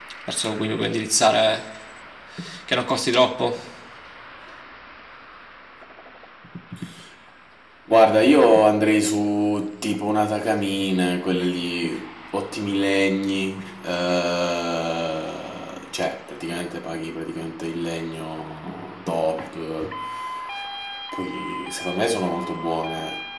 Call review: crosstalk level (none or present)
none